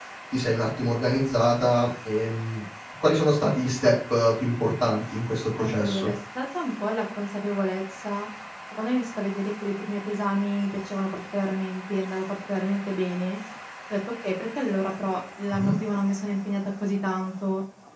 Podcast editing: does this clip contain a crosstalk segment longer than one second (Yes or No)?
No